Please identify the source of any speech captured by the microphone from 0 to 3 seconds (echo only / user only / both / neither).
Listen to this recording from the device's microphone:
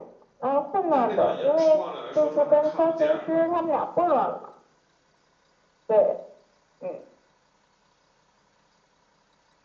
both